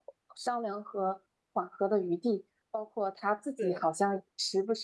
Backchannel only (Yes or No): Yes